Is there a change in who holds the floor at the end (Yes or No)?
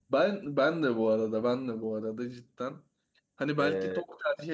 No